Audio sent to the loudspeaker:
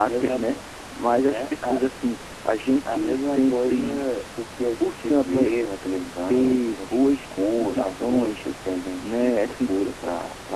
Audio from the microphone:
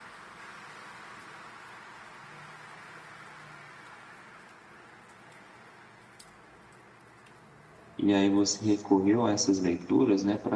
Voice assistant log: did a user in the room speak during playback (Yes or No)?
Yes